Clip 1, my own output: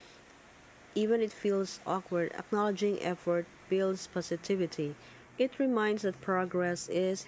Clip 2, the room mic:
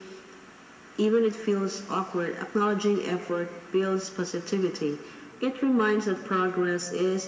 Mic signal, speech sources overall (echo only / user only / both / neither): echo only